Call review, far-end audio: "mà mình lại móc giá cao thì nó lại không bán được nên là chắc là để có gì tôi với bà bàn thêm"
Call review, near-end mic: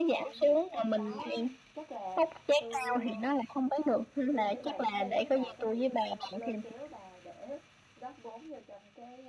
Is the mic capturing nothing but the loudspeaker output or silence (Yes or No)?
No